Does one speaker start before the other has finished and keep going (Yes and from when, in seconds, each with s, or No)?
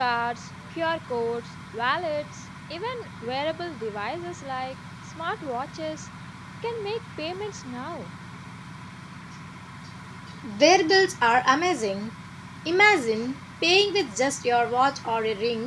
No